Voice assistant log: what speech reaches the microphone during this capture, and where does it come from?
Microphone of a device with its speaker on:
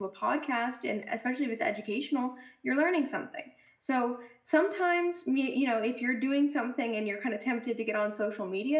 user only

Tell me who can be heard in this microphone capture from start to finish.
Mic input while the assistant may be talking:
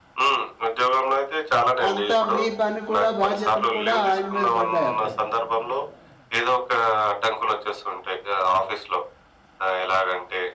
both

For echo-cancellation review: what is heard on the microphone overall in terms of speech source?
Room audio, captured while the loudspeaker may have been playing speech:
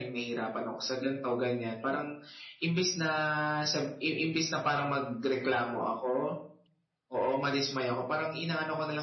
echo only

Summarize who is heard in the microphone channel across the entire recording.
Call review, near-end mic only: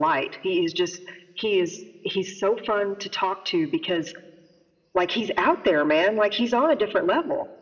echo only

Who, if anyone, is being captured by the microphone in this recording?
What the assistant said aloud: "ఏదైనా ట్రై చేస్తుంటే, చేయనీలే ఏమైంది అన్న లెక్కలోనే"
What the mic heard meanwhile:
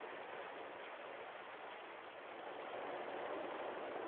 neither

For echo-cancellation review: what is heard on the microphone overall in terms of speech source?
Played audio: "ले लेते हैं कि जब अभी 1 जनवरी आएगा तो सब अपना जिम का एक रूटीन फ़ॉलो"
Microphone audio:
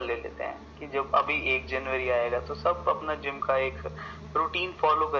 echo only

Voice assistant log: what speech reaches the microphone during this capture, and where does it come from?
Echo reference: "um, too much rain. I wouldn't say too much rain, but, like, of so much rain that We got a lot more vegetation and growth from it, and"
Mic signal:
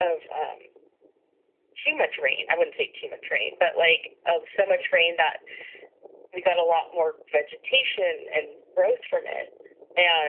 echo only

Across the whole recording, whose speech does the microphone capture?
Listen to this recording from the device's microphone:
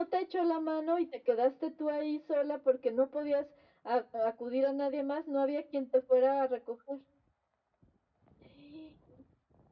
echo only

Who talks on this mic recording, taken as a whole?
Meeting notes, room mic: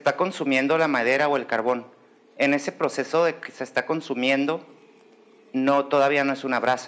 echo only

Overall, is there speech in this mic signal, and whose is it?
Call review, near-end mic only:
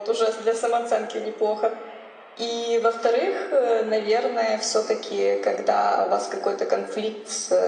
echo only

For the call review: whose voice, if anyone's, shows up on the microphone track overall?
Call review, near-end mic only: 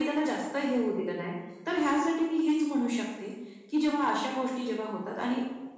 echo only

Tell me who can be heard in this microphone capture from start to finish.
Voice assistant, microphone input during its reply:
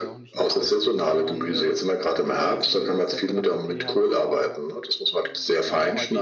both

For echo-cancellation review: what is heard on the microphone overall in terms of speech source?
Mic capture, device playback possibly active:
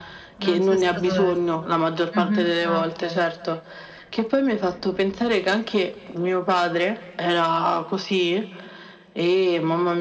both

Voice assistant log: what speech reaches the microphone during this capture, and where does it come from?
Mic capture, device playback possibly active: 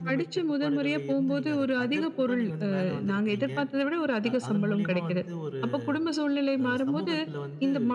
both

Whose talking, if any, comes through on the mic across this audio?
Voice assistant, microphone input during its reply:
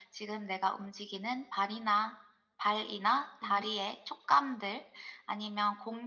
both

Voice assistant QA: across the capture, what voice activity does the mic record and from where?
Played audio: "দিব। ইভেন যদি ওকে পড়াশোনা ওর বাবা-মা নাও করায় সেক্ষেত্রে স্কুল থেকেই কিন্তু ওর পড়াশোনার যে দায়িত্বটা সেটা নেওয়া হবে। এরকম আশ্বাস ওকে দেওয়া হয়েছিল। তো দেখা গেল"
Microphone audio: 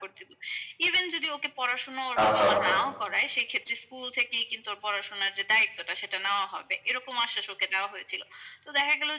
both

